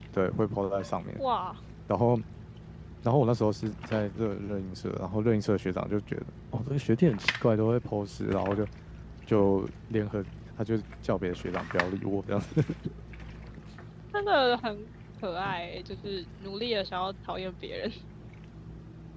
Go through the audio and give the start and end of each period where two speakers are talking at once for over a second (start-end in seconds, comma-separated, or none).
none